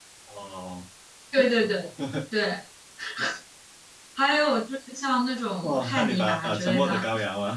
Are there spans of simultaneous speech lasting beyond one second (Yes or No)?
Yes